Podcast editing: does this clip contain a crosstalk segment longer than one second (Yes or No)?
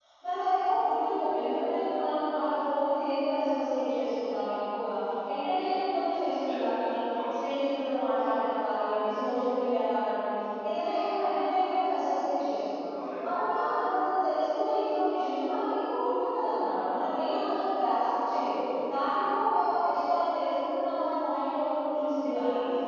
No